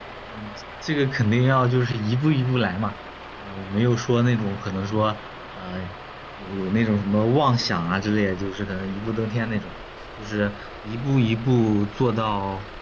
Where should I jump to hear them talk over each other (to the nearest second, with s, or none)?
none